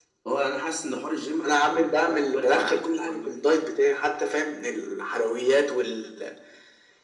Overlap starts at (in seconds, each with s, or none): 1.4 s